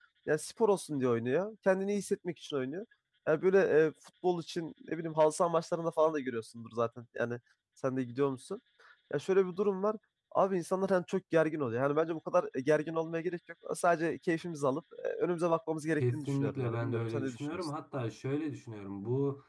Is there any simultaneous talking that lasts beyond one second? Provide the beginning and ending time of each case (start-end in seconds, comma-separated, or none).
16.0-17.7